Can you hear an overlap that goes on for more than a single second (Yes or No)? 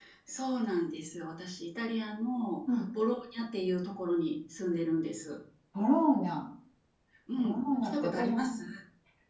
Yes